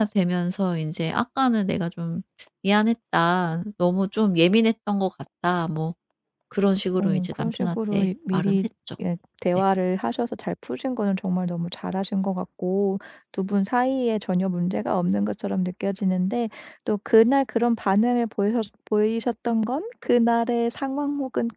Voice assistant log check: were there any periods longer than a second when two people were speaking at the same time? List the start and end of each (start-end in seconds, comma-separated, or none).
7.0-8.6